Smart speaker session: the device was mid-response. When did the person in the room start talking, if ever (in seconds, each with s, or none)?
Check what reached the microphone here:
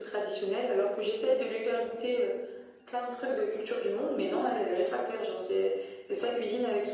none